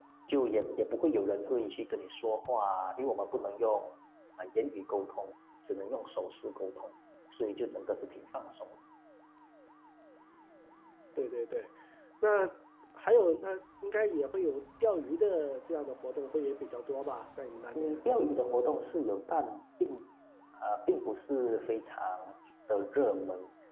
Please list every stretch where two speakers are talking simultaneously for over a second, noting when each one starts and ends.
none

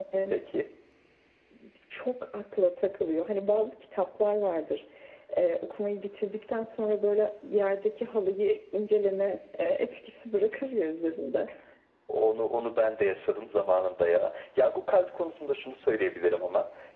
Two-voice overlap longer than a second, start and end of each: none

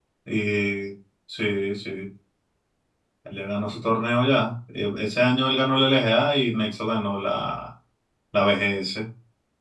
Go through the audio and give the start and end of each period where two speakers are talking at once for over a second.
none

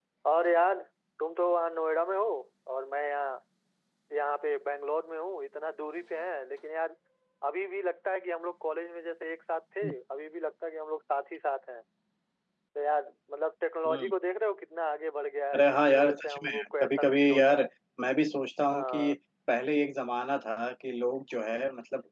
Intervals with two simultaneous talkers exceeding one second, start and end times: 15.5-17.6

